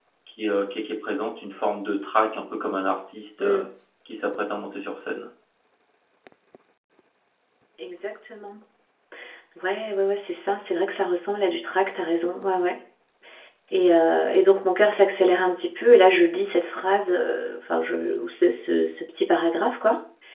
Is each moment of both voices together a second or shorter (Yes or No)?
Yes